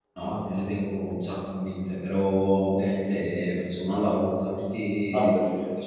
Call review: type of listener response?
listening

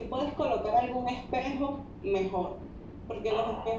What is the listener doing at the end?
listening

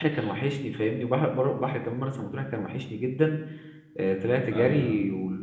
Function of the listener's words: listening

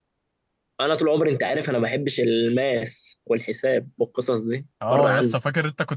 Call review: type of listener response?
taking over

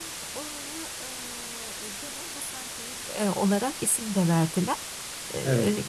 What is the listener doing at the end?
listening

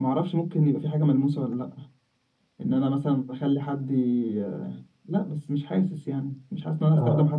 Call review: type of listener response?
listening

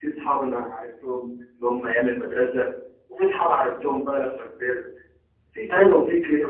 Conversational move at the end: listening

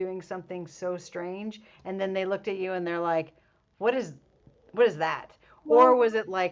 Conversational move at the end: listening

